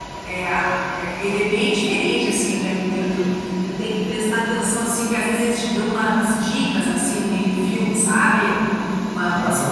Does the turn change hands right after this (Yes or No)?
No